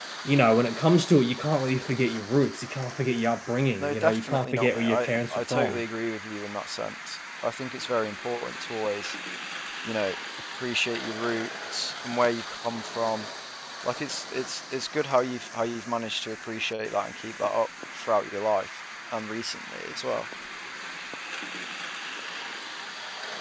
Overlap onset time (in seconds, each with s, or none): 3.8 s